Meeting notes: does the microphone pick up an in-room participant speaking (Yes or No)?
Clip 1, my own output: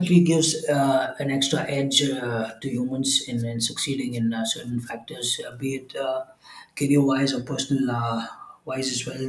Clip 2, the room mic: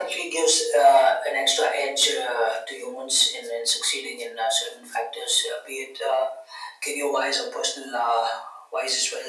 No